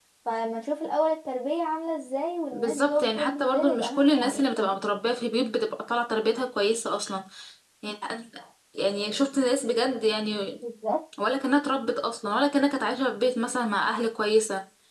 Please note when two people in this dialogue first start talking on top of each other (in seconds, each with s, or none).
2.5 s